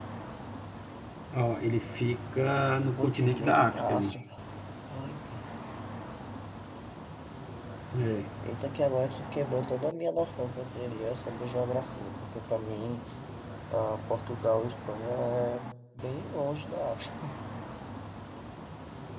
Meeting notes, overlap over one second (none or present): present